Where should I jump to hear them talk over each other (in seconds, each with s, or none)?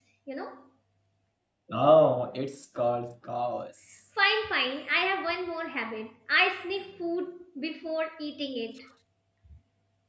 none